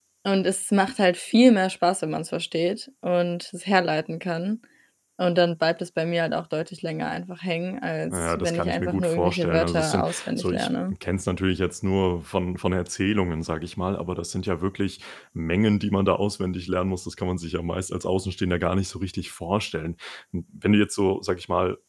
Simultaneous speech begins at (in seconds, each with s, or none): 8.1 s